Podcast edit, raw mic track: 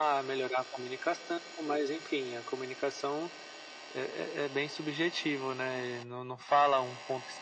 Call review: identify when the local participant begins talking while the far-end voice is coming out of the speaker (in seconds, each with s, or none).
none